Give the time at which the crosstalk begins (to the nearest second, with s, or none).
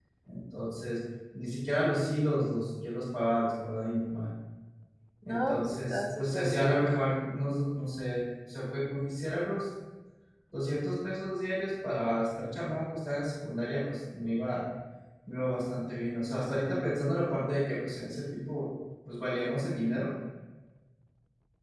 5 s